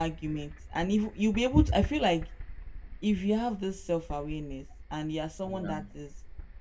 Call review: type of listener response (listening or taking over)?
listening